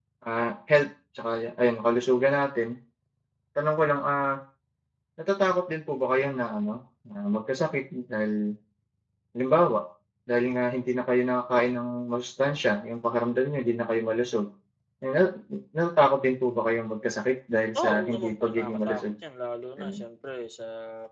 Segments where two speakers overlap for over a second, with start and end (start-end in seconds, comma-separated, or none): 17.9-19.1